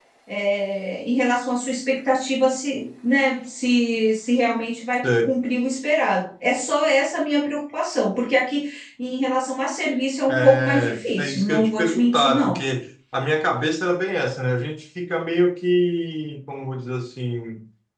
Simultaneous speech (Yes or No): Yes